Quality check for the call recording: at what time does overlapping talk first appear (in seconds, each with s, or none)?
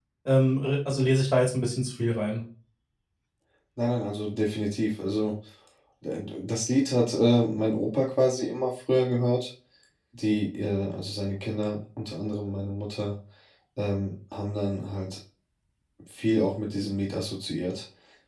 none